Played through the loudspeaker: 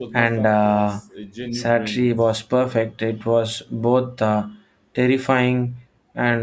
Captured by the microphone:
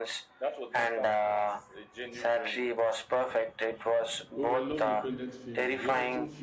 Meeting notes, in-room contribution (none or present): present